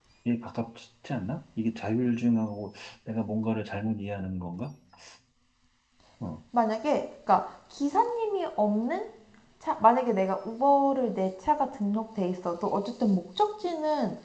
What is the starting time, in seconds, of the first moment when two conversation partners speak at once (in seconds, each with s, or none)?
none